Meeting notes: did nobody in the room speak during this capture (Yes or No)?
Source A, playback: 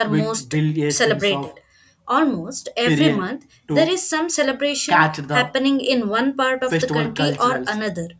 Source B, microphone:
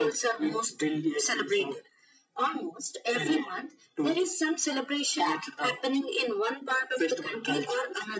Yes